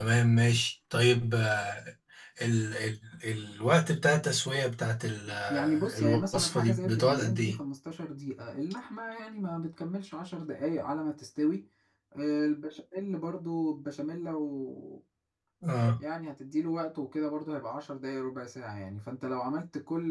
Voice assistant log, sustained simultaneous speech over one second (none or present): present